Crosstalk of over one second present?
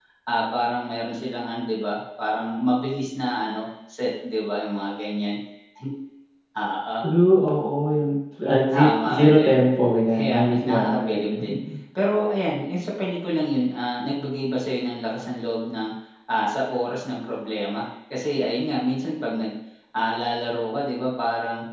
Yes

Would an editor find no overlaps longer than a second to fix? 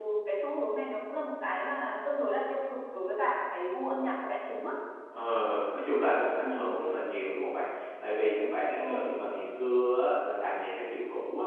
Yes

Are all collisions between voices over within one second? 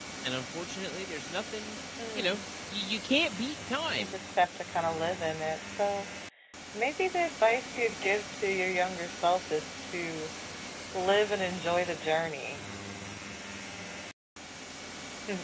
Yes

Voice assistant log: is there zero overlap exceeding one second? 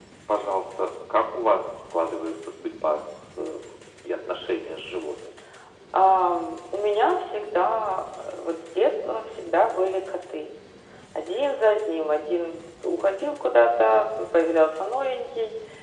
Yes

